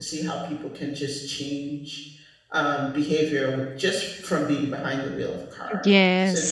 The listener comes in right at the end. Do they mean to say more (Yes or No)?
Yes